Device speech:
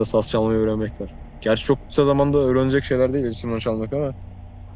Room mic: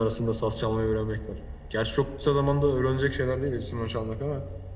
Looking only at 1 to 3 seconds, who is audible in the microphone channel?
echo only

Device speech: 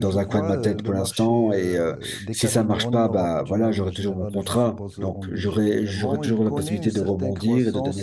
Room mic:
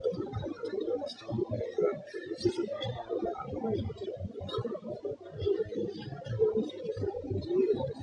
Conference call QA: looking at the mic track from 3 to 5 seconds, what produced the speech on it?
echo only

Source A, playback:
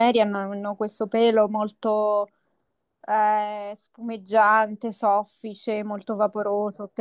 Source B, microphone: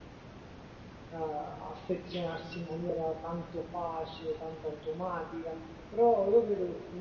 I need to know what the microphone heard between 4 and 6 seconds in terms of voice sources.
user only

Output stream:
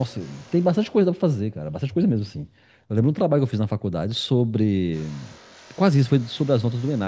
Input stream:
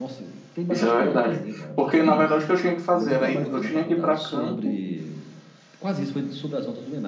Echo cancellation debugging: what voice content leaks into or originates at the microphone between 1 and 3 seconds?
both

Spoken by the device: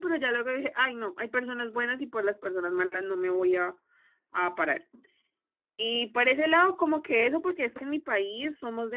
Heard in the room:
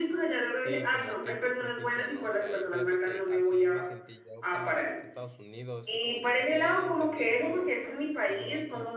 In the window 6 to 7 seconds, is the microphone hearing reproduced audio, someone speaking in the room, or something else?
both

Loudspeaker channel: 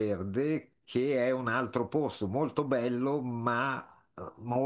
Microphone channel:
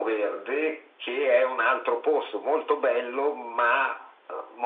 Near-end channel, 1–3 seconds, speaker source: echo only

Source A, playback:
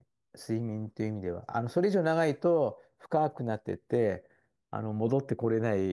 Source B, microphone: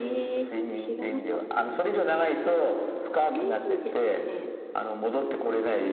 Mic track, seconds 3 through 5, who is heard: both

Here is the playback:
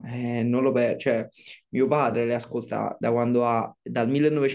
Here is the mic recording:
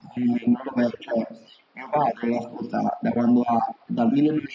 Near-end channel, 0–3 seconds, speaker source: echo only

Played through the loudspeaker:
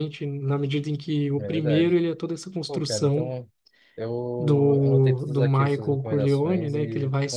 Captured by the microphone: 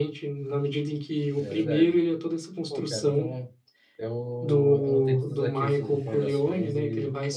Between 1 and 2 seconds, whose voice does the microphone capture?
echo only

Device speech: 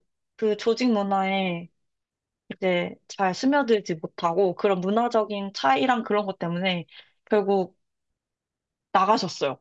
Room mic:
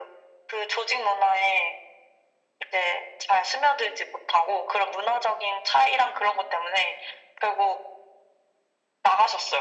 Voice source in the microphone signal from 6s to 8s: echo only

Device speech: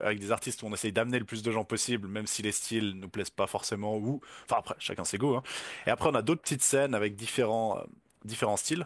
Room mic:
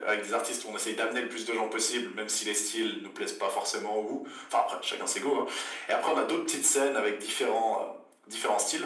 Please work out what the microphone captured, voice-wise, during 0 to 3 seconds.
echo only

